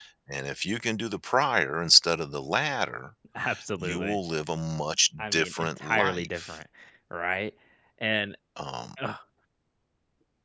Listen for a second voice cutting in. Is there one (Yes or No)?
Yes